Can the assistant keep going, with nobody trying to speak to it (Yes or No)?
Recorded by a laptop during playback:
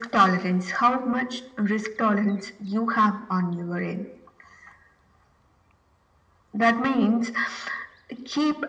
Yes